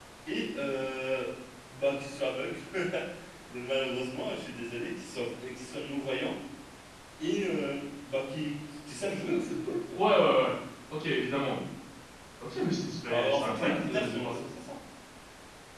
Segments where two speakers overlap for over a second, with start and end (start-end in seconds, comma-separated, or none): 13.1-14.4